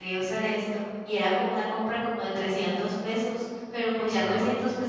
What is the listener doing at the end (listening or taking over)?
listening